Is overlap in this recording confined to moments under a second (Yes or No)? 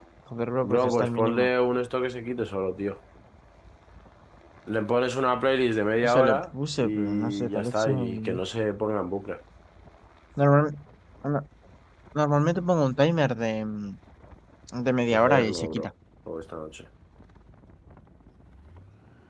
No